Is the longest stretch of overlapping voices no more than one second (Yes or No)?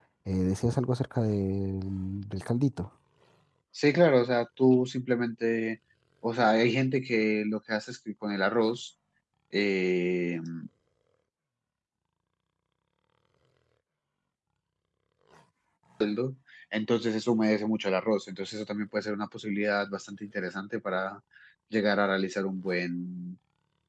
Yes